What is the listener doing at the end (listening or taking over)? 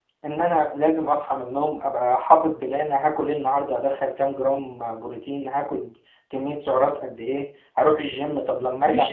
taking over